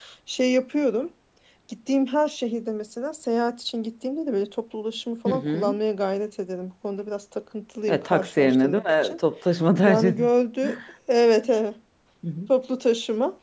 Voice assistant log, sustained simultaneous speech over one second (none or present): present